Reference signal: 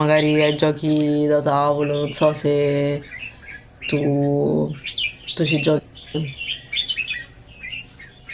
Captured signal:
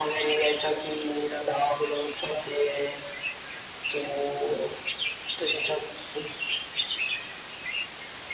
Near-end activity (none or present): none